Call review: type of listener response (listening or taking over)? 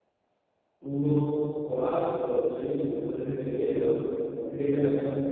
listening